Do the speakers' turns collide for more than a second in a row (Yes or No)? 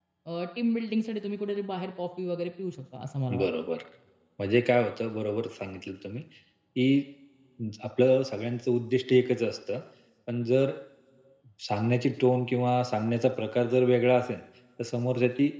No